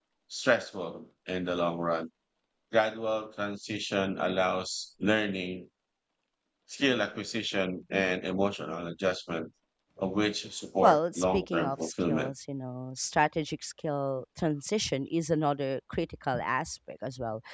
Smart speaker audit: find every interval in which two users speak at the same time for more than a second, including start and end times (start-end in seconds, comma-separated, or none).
10.8-12.3